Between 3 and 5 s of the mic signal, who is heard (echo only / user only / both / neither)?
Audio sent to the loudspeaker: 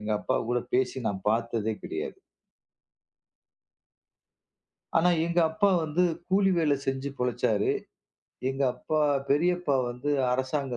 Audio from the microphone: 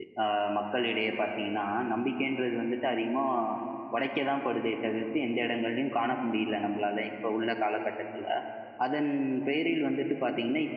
user only